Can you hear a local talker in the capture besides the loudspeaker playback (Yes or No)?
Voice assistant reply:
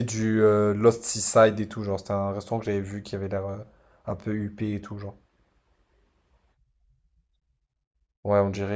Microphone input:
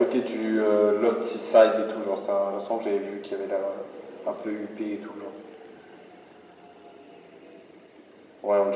No